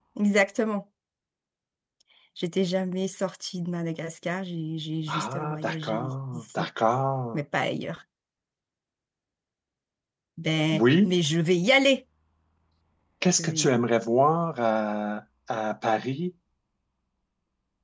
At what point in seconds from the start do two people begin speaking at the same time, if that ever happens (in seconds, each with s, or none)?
5.1 s